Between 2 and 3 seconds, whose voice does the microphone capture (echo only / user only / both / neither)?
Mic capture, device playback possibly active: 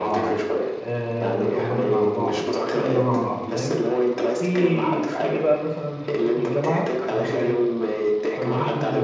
both